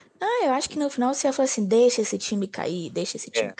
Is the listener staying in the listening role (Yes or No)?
No